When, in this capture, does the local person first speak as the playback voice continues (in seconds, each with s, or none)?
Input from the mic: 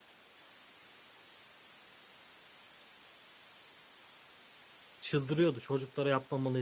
5.0 s